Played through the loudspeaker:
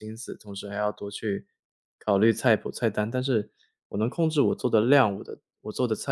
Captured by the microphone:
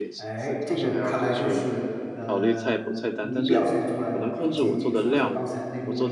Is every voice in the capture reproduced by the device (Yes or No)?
No